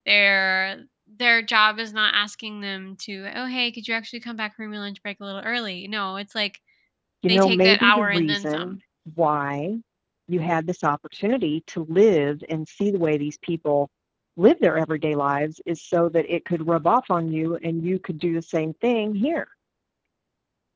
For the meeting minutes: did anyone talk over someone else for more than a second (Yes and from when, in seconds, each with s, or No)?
Yes, from 7.3 s